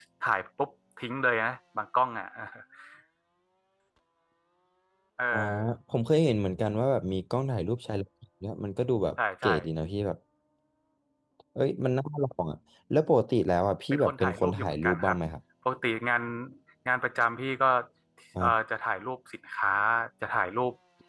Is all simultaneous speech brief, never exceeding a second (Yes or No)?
No